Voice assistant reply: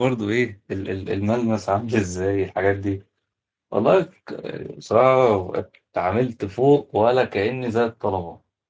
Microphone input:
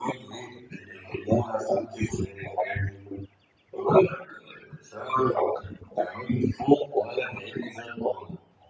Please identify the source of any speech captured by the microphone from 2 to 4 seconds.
echo only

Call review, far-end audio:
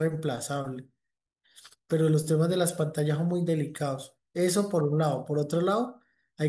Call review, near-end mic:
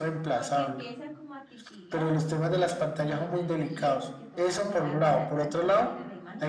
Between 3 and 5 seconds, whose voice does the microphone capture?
both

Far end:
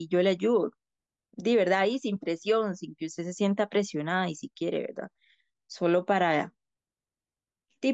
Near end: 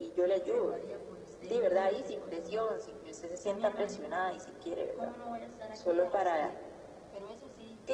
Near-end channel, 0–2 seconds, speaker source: both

